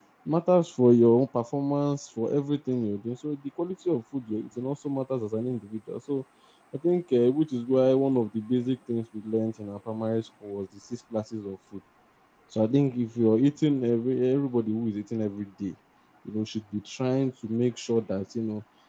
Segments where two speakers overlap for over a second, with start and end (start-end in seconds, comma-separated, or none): none